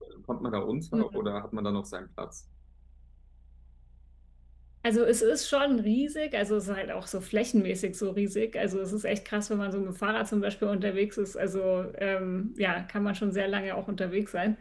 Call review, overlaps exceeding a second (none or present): none